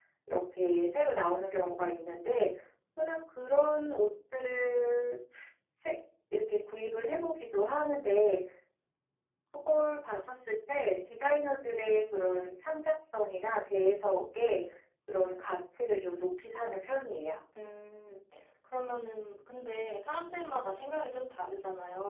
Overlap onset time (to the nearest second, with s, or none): none